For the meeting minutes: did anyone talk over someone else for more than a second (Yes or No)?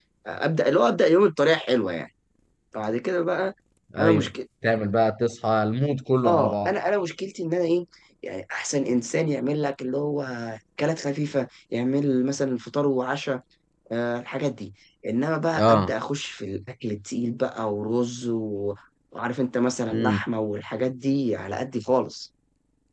No